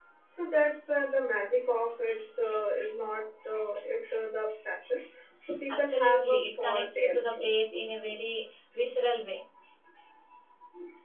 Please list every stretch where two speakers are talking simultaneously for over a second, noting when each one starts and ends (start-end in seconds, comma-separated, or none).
5.7-7.5